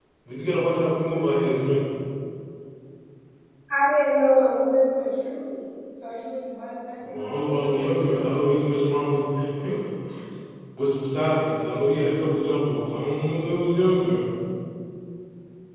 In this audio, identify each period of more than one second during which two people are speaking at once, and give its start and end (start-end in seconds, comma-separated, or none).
7.0-8.4